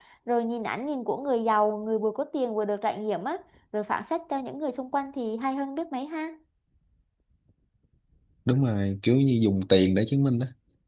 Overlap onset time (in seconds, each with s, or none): none